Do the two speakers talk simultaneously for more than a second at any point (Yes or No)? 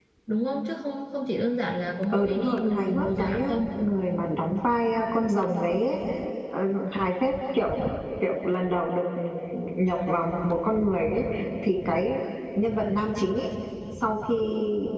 Yes